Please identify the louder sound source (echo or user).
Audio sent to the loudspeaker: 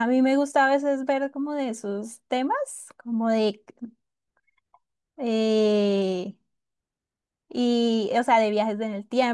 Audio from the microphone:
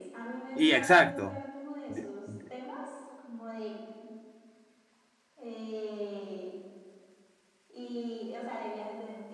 user